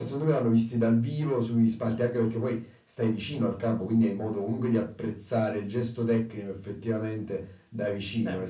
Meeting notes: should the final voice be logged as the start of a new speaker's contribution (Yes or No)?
No